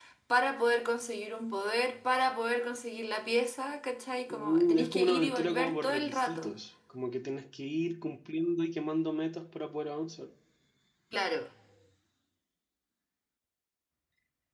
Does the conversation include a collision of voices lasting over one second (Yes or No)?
Yes